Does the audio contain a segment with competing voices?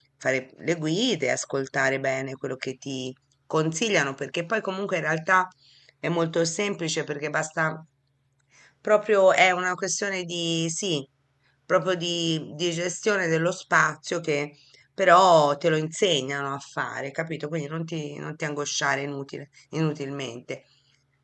No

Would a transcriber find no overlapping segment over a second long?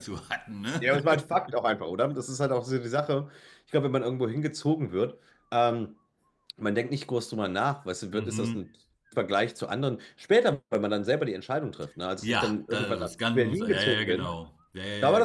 No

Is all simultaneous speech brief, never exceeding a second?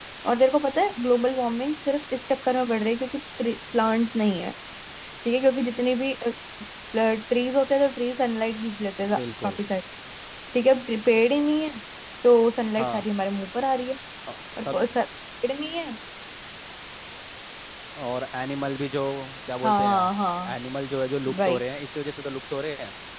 Yes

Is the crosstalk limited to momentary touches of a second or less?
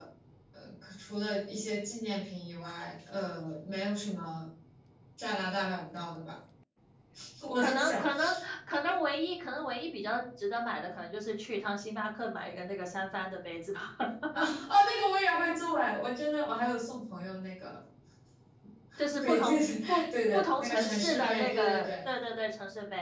No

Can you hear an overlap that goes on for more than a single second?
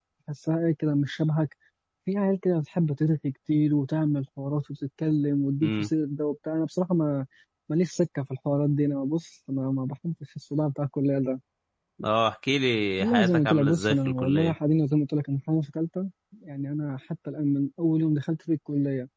Yes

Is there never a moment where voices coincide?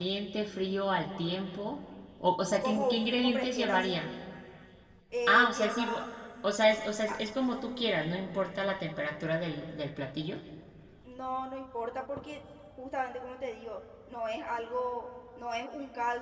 No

